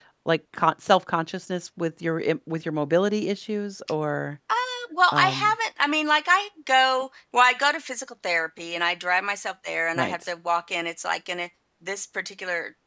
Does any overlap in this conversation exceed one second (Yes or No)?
No